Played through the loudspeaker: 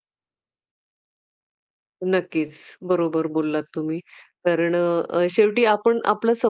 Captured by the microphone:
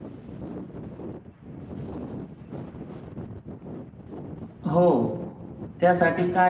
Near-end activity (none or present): present